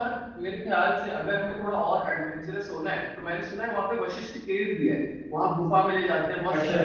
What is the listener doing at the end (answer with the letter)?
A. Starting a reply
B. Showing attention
B